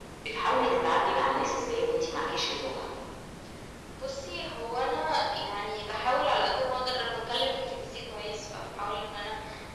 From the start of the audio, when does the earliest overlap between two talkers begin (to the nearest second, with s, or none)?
none